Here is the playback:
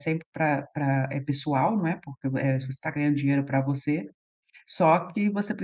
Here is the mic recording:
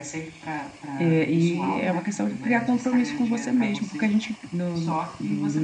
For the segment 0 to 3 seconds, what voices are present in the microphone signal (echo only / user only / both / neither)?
both